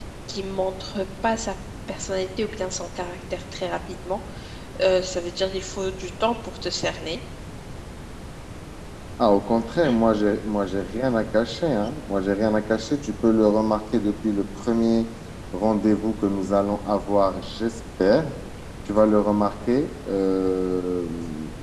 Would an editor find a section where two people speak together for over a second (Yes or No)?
No